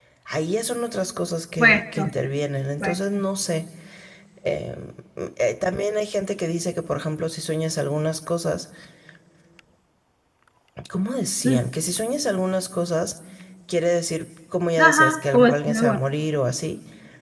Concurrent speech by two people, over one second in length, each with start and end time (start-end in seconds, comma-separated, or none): 14.8-16.0